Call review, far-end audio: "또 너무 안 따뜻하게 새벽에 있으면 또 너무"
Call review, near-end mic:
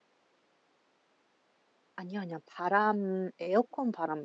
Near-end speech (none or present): present